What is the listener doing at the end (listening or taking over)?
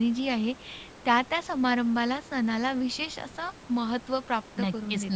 taking over